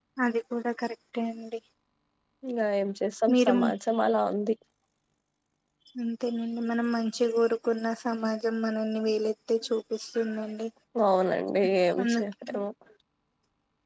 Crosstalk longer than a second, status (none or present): none